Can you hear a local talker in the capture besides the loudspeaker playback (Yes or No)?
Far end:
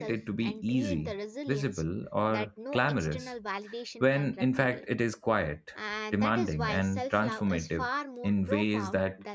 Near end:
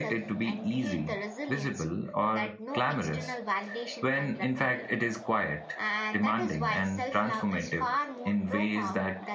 No